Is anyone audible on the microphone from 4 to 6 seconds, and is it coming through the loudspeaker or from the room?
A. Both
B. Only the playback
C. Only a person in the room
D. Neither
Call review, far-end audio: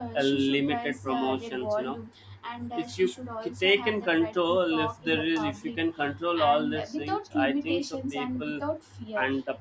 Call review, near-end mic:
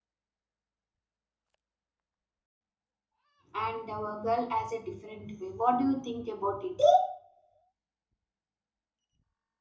C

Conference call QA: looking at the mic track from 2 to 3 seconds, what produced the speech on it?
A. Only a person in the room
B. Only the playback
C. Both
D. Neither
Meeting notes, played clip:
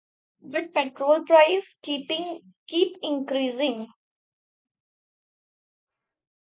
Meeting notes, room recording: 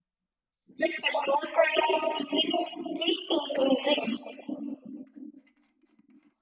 B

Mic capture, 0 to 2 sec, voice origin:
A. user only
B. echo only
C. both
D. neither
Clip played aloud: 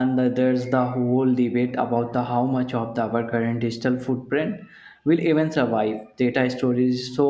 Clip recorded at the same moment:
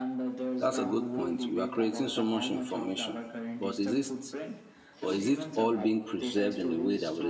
C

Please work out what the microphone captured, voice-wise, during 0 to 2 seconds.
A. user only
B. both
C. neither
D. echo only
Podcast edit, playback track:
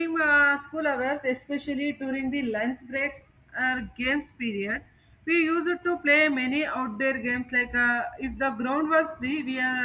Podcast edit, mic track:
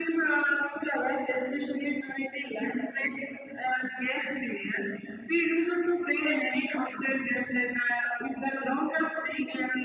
D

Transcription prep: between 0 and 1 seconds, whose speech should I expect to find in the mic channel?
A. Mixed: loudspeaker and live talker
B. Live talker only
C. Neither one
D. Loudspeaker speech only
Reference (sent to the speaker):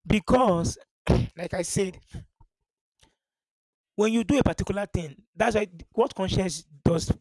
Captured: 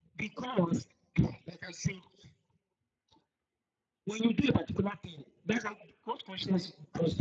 D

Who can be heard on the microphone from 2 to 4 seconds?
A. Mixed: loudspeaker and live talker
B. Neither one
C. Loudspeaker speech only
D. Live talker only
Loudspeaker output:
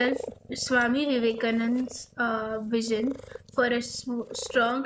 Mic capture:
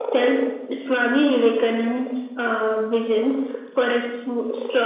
C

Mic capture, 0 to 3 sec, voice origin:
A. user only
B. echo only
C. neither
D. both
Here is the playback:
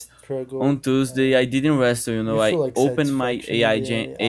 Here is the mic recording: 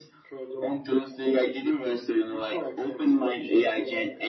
B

